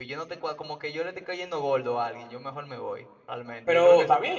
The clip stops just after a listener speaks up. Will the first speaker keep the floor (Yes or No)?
No